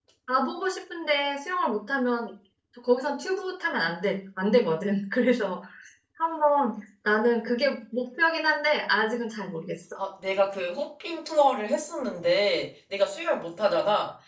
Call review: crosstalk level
none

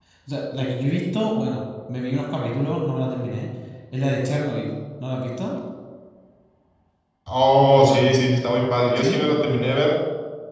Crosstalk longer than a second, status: none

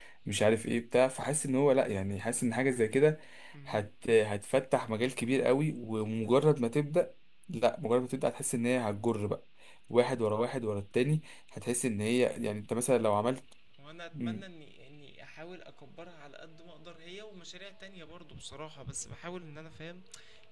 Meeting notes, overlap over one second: none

